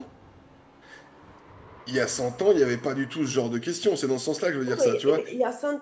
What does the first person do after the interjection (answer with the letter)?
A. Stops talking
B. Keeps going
A